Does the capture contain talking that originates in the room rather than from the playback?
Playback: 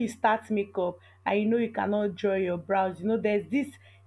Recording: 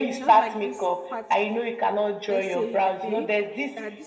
Yes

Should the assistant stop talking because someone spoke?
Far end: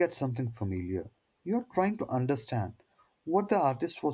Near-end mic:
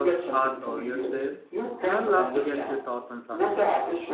Yes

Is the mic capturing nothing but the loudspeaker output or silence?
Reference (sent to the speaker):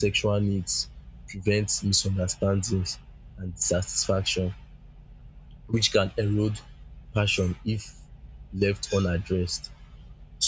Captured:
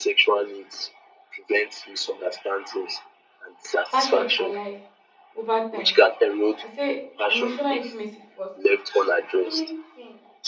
No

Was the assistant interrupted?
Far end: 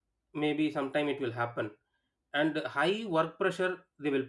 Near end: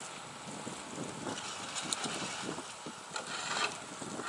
No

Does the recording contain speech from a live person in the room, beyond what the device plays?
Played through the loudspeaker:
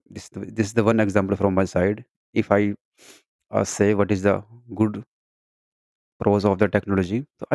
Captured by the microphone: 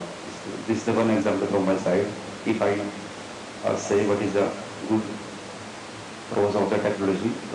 No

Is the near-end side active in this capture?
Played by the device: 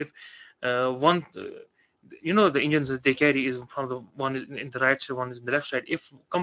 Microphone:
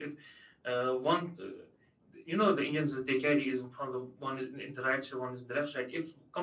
No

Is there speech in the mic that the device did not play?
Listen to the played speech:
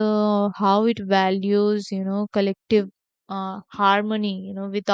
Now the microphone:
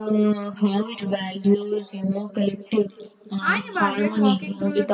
Yes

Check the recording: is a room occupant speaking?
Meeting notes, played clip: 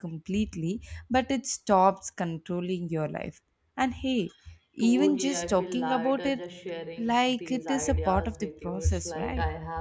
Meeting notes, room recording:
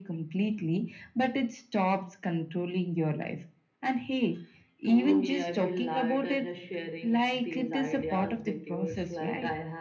No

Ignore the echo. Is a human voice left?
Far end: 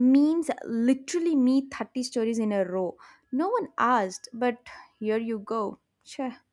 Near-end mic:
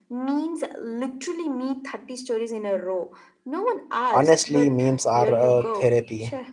Yes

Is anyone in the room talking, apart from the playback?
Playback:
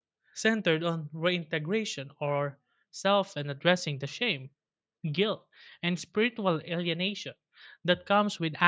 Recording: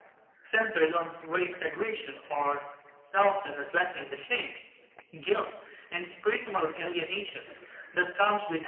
No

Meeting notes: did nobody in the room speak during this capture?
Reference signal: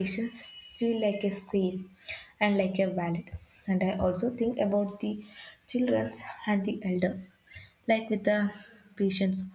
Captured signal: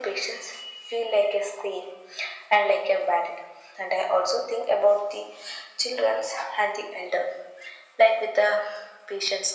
Yes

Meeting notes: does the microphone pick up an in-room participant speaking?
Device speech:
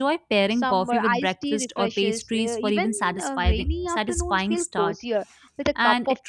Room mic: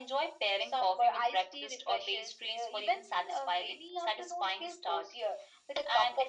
No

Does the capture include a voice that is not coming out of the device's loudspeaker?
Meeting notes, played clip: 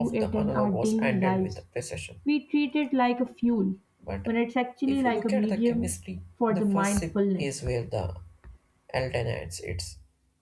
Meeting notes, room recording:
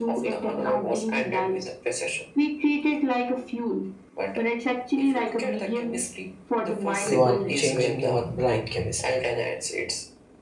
Yes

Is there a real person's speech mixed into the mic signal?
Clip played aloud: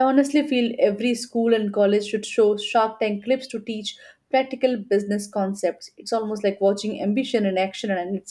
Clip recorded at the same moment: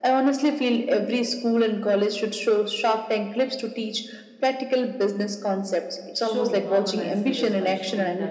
Yes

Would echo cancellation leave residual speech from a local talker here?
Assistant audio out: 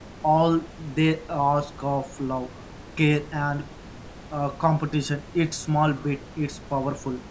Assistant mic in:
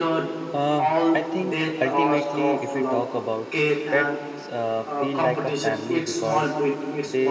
Yes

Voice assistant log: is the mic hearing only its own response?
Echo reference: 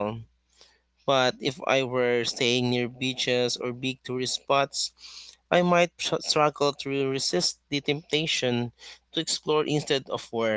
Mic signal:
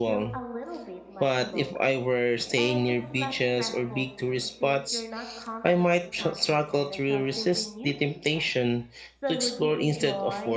No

